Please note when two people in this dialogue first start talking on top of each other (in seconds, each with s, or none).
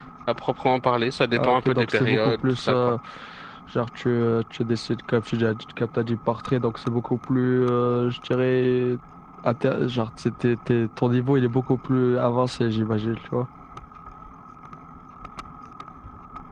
1.4 s